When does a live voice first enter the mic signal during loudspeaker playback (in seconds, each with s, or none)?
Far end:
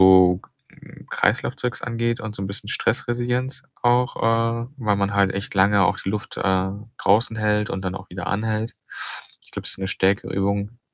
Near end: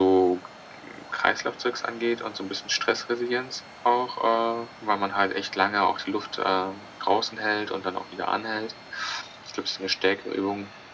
none